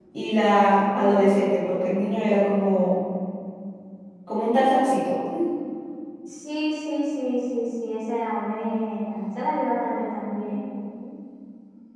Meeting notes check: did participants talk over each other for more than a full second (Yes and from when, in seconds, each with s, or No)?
No